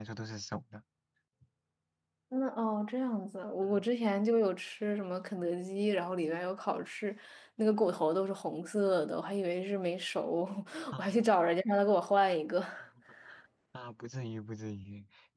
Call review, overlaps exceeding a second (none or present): none